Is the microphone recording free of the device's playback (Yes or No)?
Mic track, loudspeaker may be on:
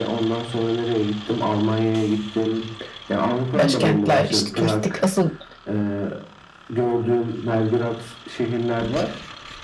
No